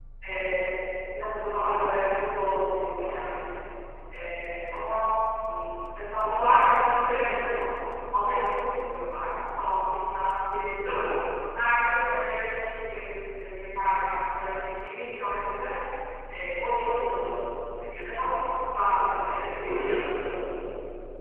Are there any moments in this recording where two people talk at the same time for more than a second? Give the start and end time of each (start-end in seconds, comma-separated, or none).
none